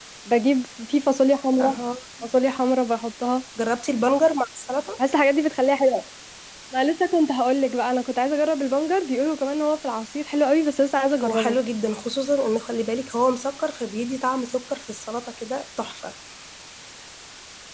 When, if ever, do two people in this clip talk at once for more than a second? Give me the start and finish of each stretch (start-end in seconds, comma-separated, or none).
none